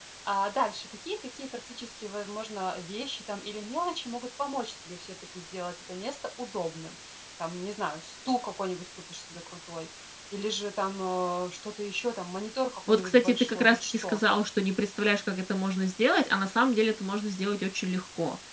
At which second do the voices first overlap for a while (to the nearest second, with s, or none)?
13 s